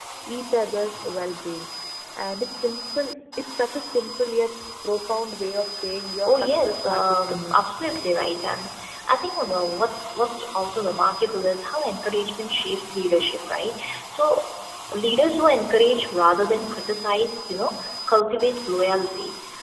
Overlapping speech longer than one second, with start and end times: 6.3-7.6

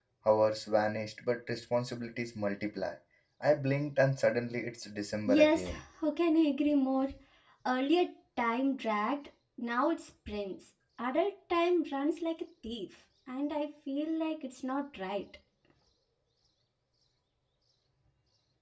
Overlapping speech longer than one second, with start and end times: none

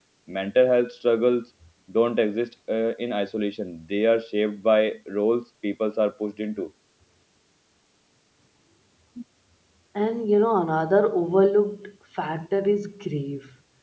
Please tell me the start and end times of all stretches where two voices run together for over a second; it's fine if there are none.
none

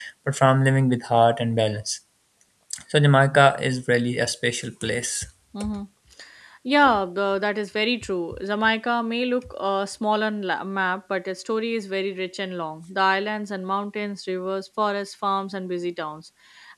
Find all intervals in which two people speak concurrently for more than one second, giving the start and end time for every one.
none

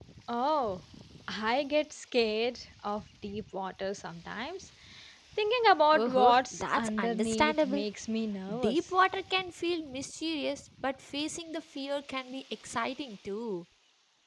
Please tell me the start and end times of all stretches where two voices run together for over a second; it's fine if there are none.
5.9-7.8

